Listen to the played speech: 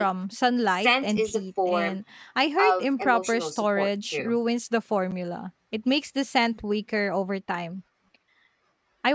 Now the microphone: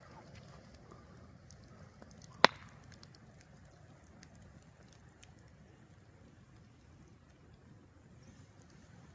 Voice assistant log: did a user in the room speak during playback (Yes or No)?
No